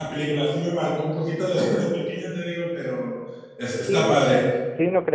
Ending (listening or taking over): taking over